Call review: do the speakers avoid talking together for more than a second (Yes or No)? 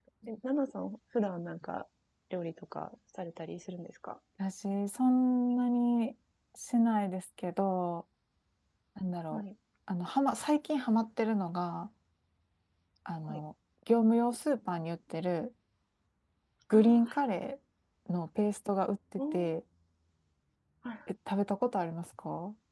Yes